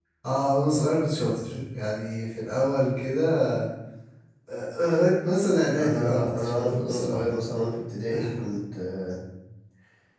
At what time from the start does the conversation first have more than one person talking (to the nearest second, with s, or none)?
6 s